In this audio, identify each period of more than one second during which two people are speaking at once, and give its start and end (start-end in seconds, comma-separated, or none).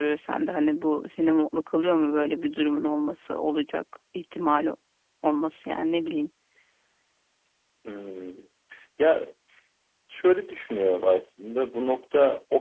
none